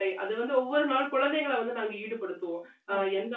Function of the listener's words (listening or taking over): listening